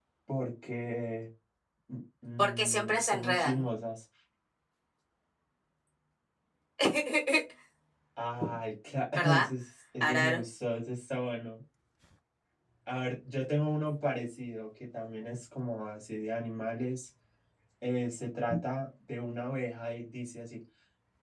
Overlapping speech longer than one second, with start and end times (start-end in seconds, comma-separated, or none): 2.4-3.6